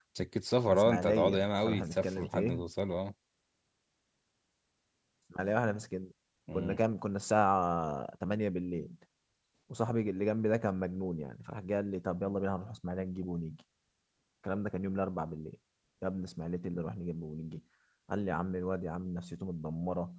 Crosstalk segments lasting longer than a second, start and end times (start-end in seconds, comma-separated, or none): 0.7-2.6